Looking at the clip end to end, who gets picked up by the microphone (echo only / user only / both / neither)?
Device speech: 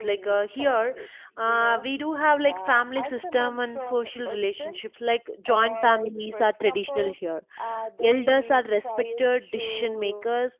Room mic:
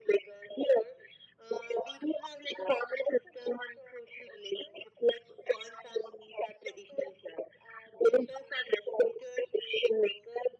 echo only